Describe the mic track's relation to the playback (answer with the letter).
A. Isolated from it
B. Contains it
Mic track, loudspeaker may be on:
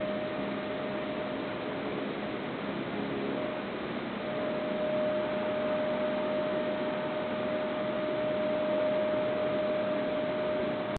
A